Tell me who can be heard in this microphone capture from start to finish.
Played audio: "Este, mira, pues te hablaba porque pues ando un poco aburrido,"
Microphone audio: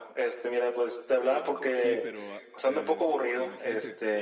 both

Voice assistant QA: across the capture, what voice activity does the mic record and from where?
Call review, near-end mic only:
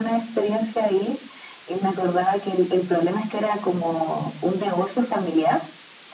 echo only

